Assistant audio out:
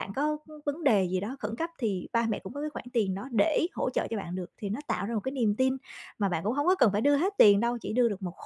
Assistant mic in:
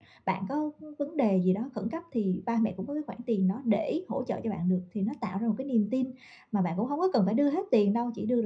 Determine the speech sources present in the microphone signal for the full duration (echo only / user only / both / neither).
echo only